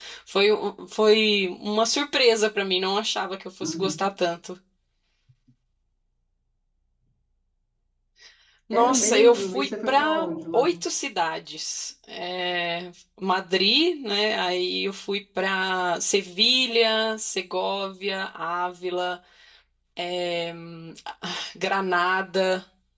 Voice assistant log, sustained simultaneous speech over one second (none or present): present